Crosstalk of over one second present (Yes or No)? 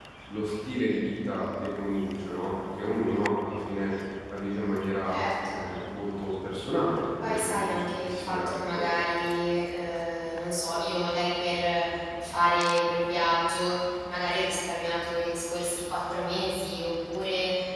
Yes